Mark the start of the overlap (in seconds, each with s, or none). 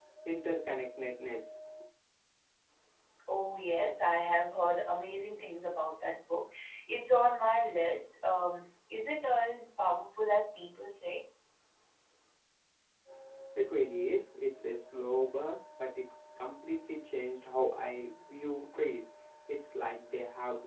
none